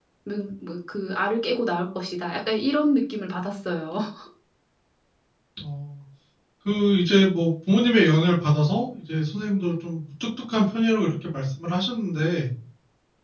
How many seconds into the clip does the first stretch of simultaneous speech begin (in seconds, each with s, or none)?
none